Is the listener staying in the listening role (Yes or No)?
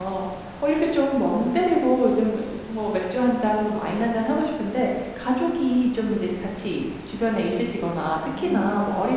Yes